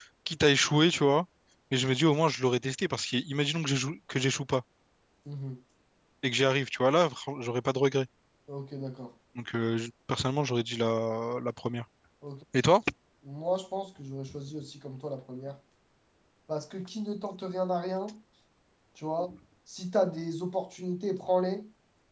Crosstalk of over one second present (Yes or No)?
No